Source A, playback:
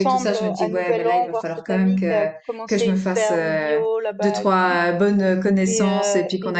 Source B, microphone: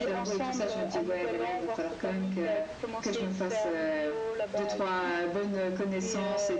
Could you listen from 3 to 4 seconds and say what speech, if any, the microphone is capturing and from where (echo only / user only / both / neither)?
echo only